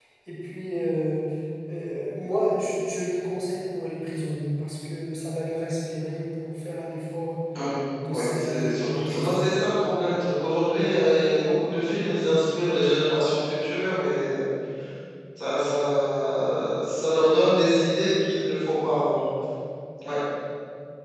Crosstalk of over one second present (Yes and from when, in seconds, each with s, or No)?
Yes, from 8.1 s